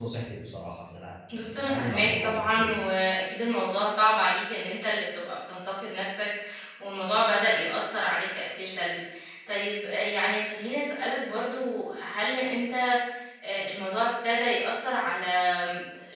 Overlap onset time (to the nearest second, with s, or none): 1 s